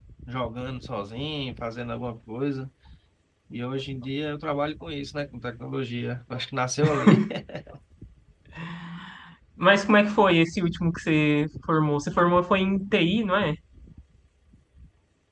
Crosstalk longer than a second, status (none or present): none